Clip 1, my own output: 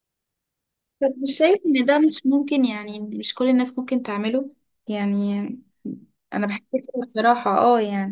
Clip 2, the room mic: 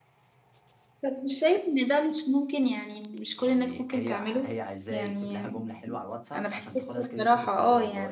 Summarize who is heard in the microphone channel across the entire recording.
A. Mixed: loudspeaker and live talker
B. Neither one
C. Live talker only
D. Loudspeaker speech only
A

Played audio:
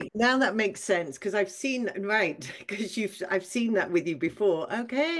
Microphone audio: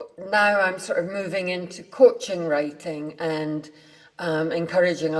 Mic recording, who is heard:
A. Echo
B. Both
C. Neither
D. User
D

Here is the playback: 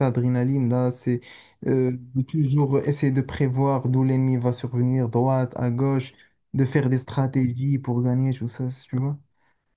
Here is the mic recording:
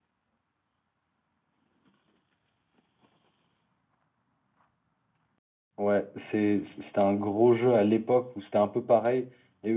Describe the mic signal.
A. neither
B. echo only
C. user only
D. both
C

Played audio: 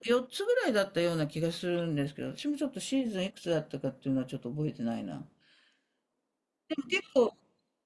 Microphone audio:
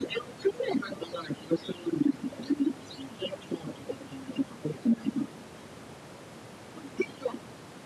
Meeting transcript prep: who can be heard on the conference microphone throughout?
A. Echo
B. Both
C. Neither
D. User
A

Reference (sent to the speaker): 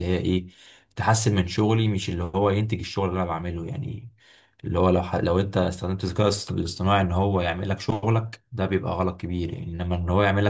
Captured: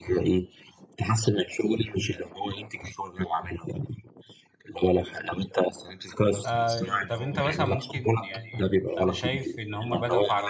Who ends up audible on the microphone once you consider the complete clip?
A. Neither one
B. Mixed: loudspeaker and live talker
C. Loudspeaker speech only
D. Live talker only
B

